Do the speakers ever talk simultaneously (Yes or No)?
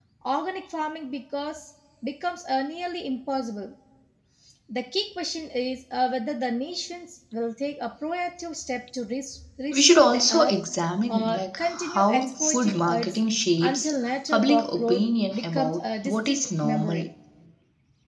Yes